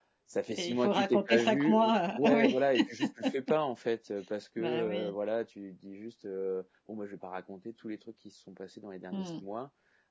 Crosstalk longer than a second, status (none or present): present